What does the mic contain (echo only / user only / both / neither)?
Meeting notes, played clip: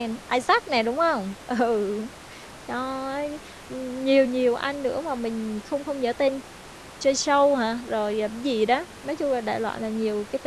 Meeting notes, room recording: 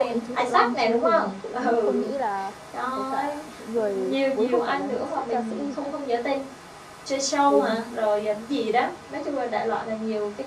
both